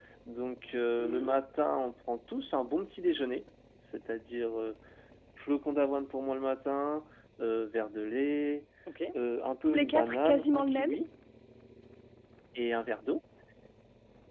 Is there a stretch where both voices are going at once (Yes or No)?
Yes